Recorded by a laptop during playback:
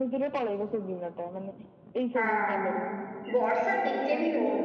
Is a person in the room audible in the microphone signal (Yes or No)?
Yes